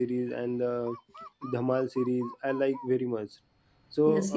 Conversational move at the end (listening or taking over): taking over